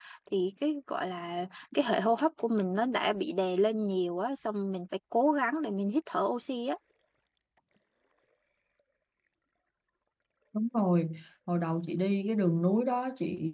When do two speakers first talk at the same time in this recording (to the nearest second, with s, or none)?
none